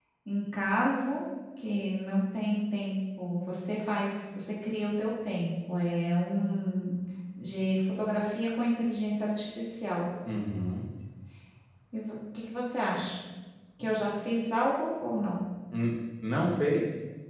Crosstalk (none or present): none